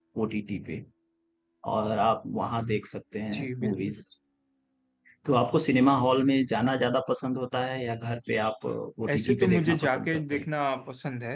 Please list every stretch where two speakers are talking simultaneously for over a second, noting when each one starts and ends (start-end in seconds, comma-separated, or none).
9.1-10.4